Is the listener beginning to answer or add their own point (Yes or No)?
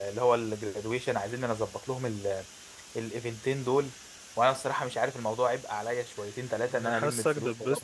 Yes